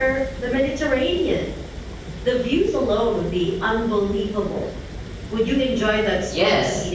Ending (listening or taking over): taking over